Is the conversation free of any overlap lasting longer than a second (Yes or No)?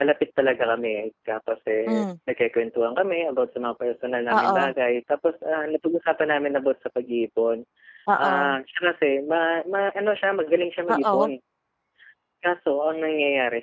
Yes